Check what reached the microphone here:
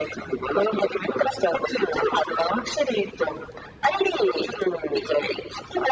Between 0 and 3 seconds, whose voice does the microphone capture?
echo only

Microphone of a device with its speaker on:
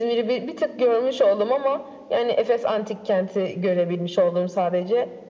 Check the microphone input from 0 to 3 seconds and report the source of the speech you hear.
echo only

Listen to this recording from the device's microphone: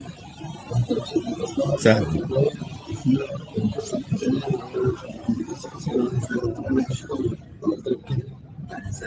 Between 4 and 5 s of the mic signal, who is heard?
echo only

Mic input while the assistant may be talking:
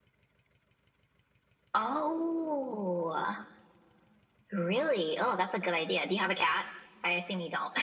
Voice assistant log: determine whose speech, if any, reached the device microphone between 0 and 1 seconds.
neither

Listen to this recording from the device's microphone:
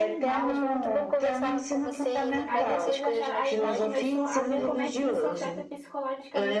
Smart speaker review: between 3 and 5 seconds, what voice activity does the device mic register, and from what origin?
both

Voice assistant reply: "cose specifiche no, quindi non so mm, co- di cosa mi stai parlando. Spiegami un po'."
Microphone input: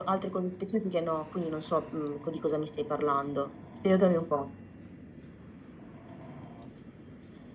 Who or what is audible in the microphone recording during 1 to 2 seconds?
echo only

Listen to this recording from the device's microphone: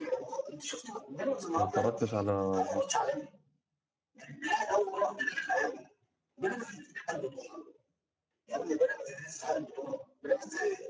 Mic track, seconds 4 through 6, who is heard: echo only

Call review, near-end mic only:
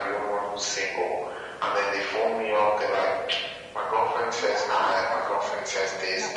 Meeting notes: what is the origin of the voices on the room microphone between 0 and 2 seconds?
echo only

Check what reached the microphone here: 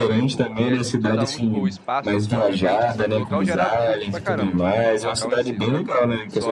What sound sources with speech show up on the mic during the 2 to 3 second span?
both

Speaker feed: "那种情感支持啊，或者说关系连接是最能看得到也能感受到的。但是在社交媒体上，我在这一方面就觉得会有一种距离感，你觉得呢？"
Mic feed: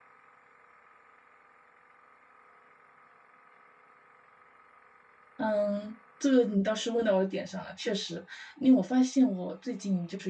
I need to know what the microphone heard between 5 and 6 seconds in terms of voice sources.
user only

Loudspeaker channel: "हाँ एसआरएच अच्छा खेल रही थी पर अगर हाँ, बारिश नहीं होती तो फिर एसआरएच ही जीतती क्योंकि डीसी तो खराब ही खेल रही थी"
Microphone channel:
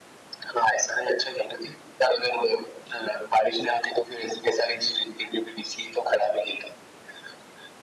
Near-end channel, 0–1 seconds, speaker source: echo only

